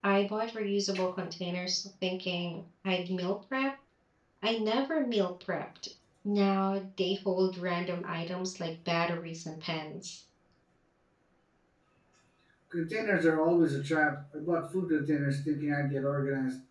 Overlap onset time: none

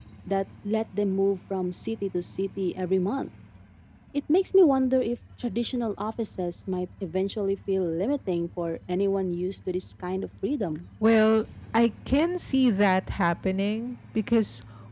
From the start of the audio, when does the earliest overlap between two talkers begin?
none

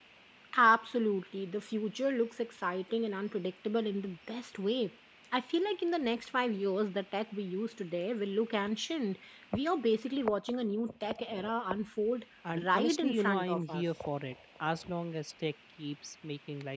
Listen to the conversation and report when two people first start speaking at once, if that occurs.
12.6 s

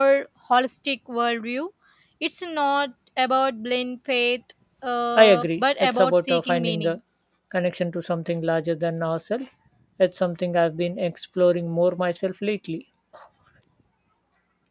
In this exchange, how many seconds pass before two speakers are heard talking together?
5.2 s

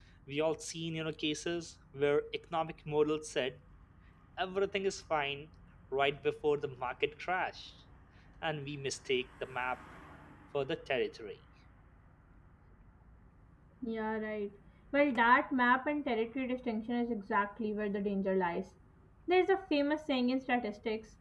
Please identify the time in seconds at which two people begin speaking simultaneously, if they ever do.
none

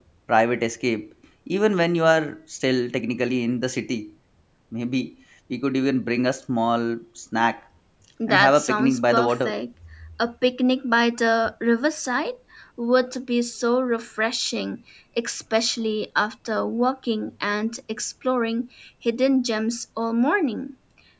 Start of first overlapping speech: 8.3 s

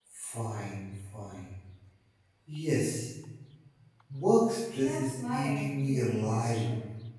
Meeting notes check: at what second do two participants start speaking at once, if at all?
4.8 s

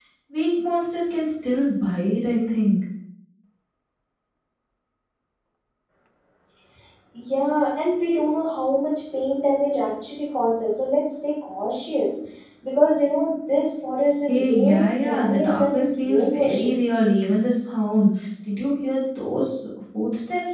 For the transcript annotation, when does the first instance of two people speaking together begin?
14.3 s

